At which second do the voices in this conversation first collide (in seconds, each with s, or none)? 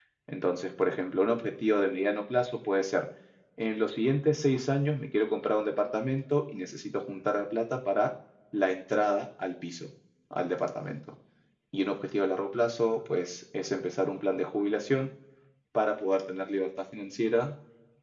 none